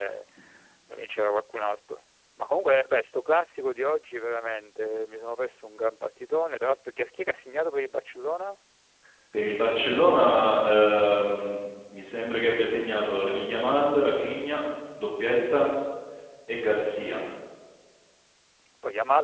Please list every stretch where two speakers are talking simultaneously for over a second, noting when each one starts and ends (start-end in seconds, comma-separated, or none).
none